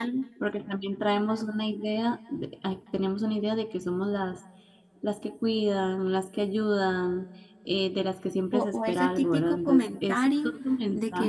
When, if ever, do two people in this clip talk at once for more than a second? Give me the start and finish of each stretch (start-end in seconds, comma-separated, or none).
8.5-10.6